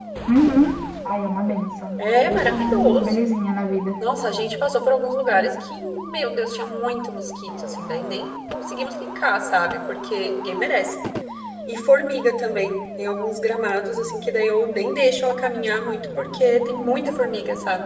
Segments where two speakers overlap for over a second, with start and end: 2.0-3.2

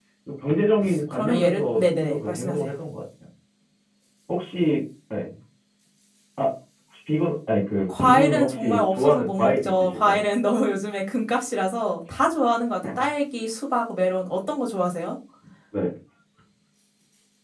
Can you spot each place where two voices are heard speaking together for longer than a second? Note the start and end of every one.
1.1-2.6, 8.0-10.2

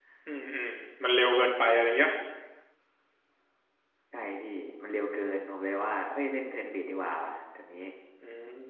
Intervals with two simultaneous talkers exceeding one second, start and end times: none

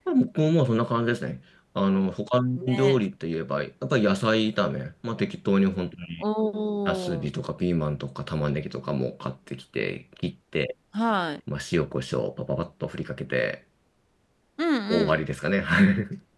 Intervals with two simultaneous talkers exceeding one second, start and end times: none

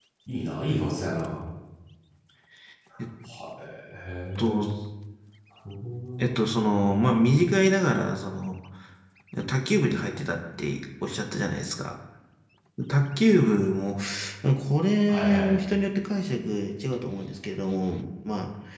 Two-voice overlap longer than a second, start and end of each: none

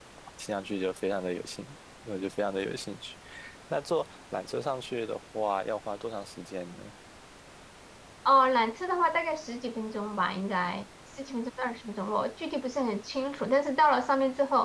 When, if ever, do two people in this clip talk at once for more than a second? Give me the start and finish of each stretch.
none

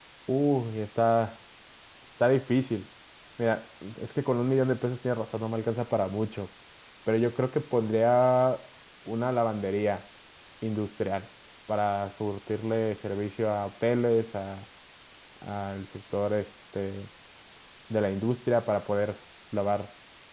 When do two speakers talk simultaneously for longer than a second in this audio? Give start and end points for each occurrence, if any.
none

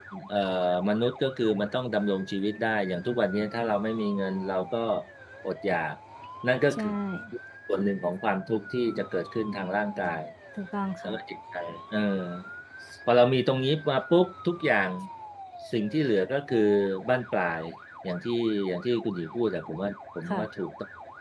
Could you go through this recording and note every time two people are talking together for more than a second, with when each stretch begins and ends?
none

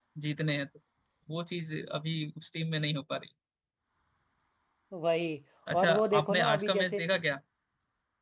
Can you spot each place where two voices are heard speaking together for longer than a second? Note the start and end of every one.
5.7-7.0

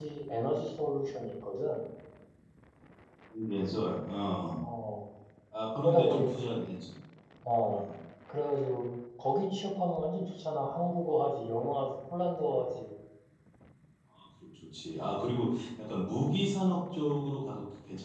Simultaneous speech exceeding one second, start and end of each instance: none

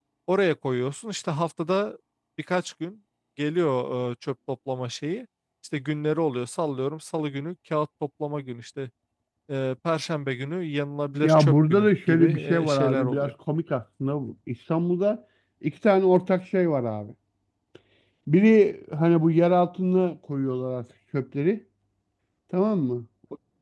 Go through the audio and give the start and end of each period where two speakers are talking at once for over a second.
11.2-13.3

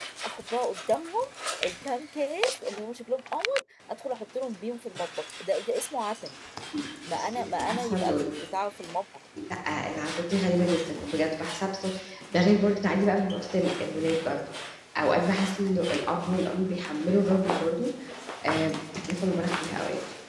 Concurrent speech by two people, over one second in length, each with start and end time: 7.1-8.3

